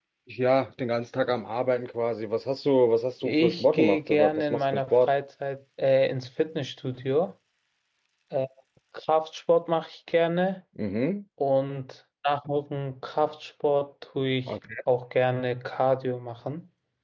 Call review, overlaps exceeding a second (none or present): present